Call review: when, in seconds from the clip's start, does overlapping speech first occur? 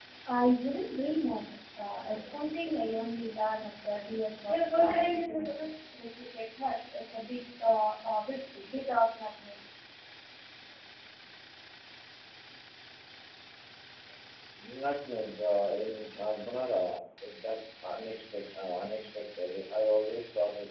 none

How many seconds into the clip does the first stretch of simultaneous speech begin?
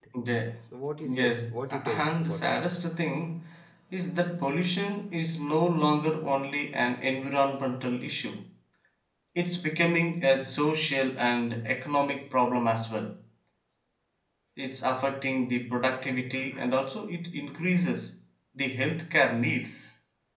1.1 s

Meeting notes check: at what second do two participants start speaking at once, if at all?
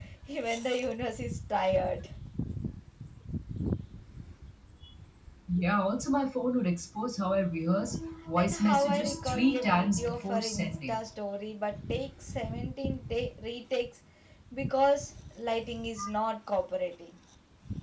8.4 s

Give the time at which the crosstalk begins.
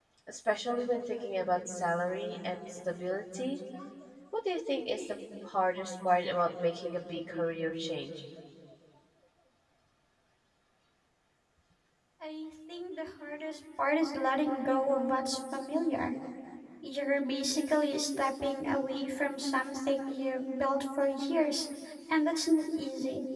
none

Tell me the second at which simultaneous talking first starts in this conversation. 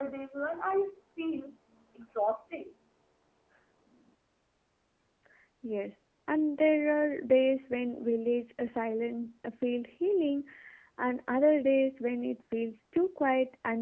none

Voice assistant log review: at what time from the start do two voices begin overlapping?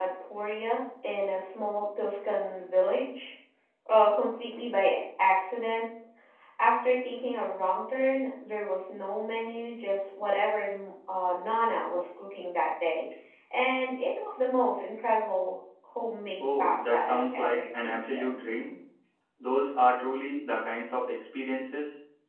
16.4 s

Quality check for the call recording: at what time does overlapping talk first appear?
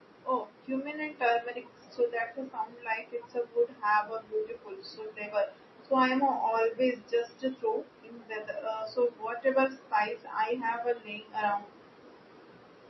none

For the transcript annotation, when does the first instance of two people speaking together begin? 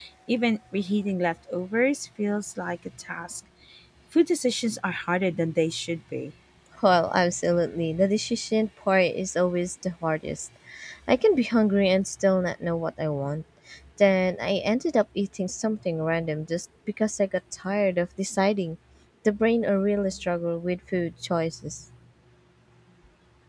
none

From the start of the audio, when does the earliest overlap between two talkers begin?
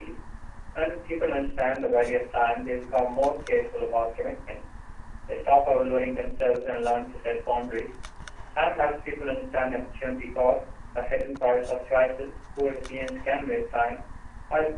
none

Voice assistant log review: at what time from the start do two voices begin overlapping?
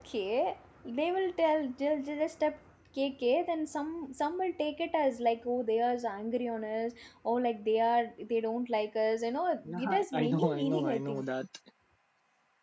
9.6 s

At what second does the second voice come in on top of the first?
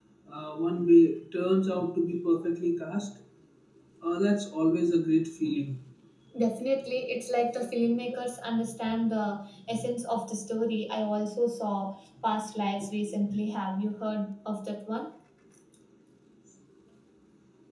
none

